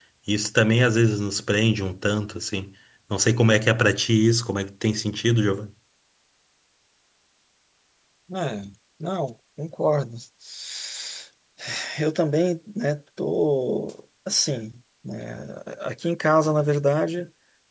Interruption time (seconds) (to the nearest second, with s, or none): none